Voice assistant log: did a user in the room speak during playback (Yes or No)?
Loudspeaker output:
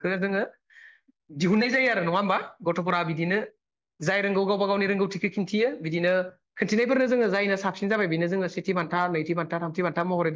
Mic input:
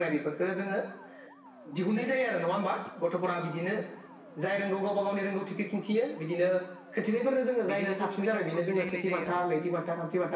Yes